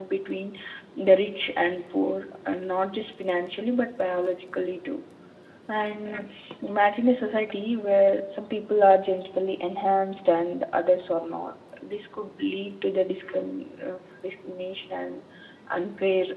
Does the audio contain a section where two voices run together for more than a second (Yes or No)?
No